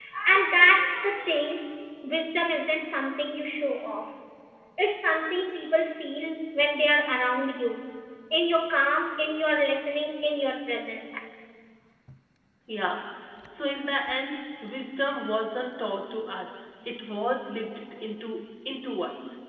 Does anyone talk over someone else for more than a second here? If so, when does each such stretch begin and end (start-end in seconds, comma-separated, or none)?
none